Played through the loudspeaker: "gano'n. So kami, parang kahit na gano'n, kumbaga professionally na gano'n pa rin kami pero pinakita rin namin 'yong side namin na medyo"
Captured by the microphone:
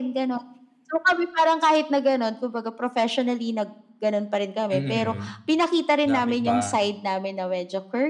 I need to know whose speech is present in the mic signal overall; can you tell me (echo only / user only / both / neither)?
both